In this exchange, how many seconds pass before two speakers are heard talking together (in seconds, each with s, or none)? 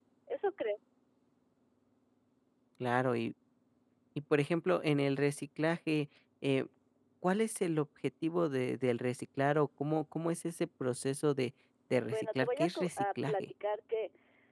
12.0 s